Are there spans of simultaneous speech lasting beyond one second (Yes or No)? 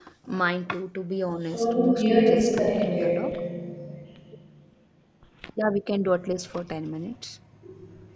Yes